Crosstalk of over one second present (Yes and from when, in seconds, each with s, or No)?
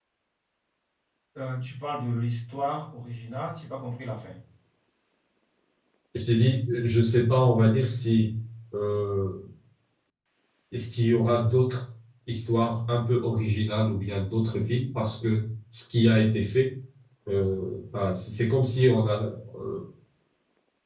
No